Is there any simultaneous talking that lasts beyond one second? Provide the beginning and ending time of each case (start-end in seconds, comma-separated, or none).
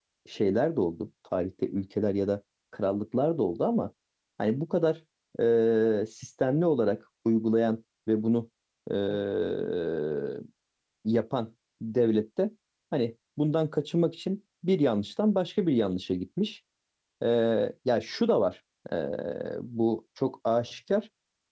none